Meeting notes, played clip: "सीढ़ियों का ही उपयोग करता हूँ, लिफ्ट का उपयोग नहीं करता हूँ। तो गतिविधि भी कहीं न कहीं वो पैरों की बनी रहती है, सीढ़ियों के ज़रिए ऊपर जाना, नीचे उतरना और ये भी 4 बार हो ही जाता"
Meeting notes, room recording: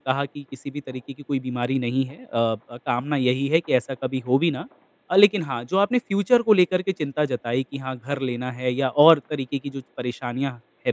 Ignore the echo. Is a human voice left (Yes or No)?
Yes